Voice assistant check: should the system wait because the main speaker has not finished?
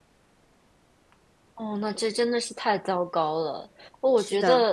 Yes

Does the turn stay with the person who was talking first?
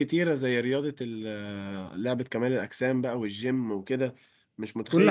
Yes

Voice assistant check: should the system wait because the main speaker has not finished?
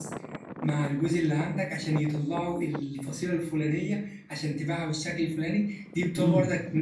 Yes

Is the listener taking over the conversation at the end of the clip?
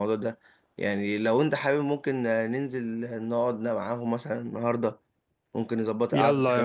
Yes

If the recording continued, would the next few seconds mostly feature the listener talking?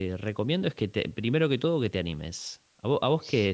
No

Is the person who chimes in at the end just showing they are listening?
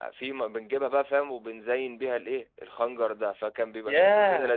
No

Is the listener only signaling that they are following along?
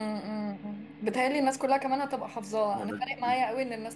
Yes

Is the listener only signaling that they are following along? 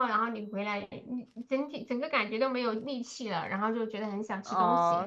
No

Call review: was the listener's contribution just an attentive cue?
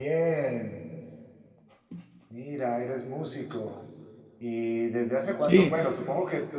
Yes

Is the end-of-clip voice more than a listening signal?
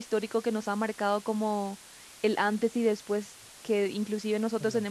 No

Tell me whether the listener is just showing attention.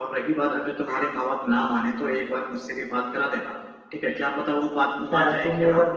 No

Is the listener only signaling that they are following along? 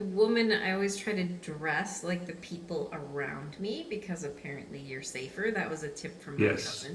No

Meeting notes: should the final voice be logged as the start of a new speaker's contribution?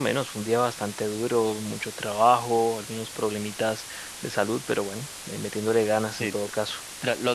Yes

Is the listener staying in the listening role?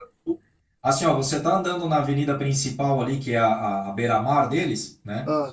Yes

